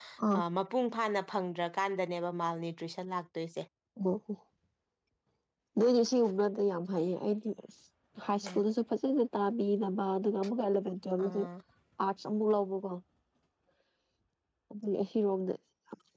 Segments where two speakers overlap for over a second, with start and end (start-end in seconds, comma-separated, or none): none